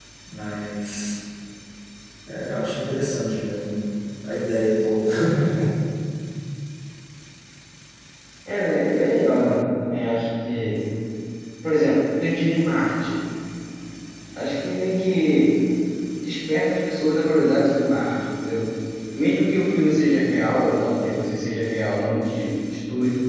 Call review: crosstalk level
none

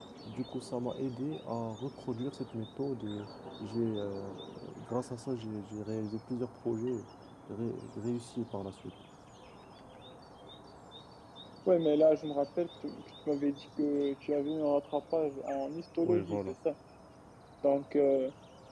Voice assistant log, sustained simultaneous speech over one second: none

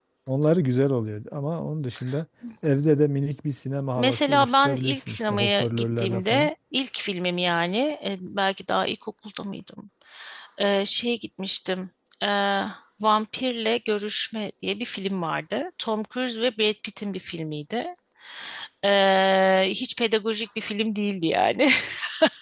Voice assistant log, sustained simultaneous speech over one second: present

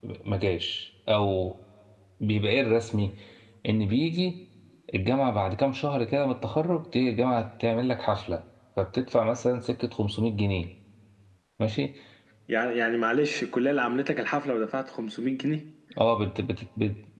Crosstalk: none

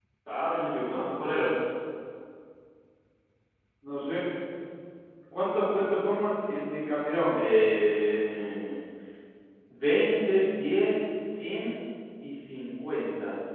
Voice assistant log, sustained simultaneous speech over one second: none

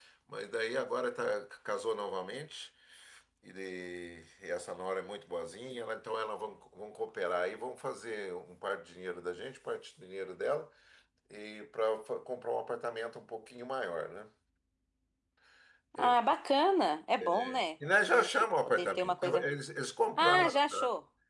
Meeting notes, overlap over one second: present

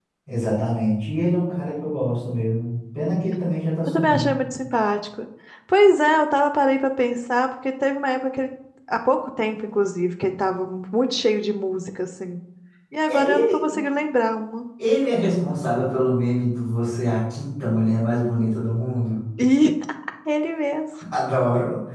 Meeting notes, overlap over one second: none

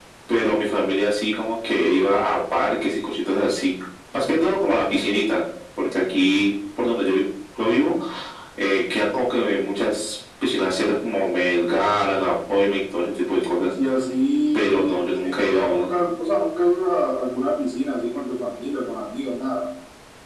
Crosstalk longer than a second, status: present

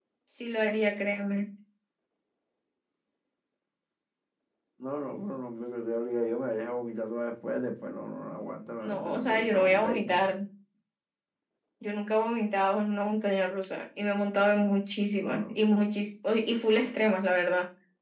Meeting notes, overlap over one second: present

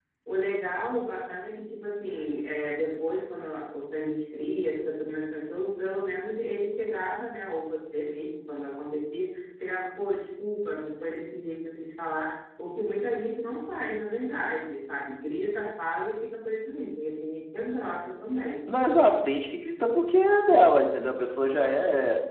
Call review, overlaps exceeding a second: none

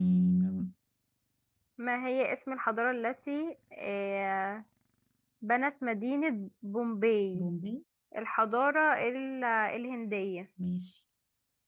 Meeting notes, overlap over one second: none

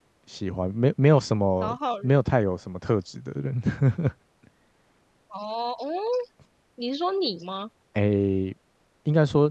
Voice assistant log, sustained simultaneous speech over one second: none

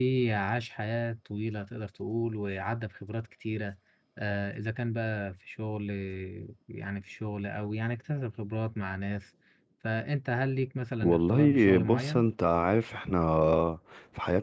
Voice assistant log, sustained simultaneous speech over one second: present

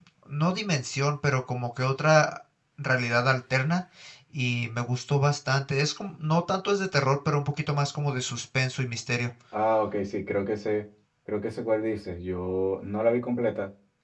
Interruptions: none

